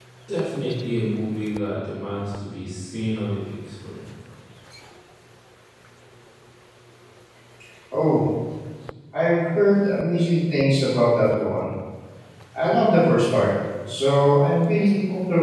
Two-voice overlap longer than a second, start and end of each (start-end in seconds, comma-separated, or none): none